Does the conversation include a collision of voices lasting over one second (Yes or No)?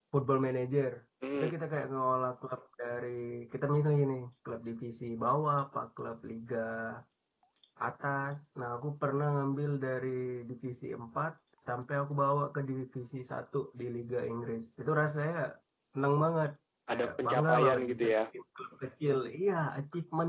Yes